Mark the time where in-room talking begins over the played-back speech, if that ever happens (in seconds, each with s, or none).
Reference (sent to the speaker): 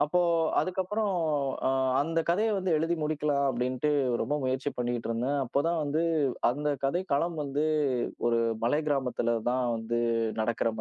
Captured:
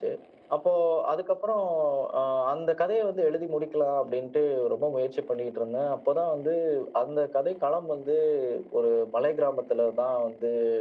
none